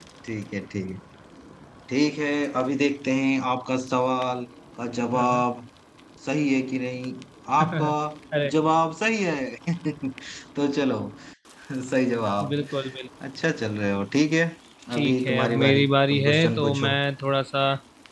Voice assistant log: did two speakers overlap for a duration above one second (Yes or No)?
Yes